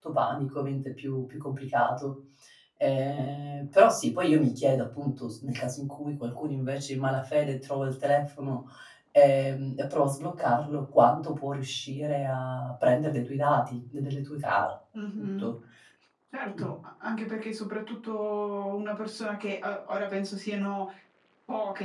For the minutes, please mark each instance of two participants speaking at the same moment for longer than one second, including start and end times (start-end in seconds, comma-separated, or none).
none